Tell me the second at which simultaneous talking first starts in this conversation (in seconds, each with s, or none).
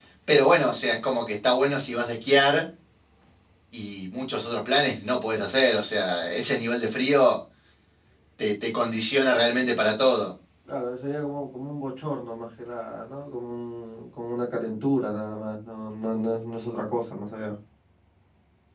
none